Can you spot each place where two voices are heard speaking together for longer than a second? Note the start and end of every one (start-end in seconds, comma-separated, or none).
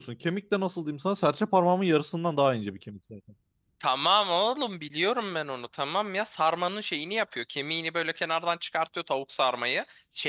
none